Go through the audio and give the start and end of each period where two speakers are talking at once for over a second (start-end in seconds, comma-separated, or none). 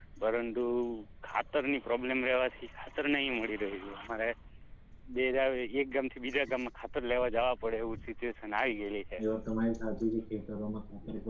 none